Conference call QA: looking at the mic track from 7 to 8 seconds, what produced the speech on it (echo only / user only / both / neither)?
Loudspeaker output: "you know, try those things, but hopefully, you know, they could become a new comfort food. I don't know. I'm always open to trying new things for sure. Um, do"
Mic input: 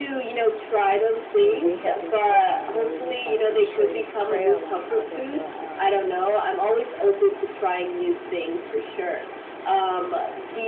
echo only